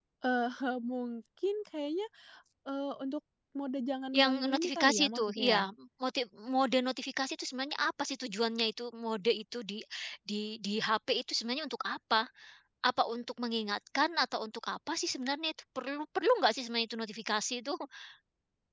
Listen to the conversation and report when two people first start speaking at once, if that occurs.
4.1 s

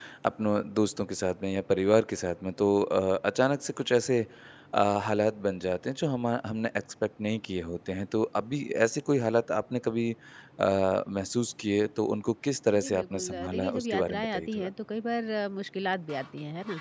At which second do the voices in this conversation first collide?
12.7 s

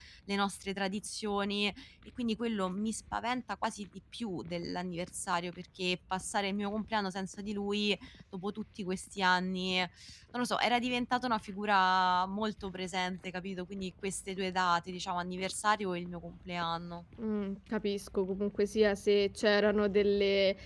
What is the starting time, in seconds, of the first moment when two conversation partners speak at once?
none

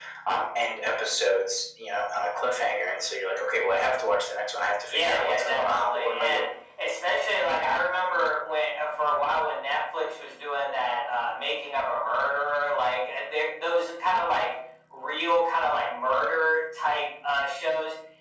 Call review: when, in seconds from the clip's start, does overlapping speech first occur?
4.9 s

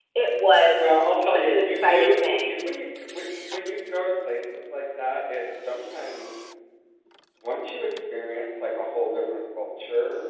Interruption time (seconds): 1.3 s

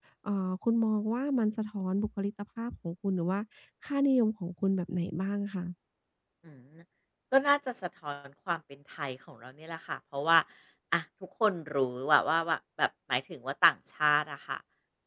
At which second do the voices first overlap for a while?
none

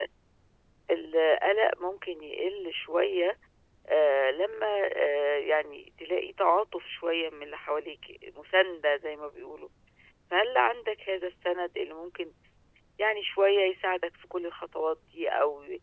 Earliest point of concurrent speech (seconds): none

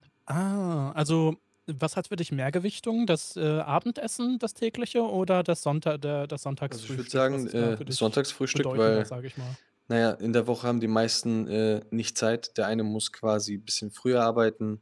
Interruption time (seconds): 6.7 s

